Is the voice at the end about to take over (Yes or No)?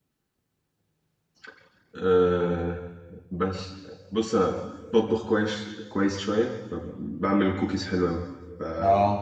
No